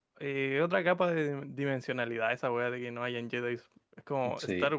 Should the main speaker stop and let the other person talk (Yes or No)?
No